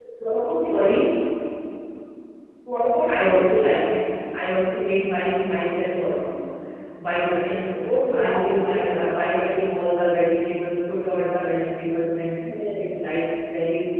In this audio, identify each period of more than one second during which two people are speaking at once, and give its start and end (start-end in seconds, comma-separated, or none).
7.8-9.1